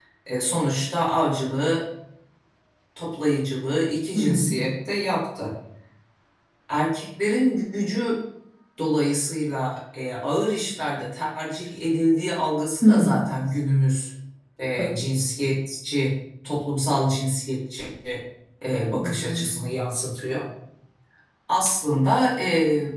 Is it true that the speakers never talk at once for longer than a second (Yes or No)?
Yes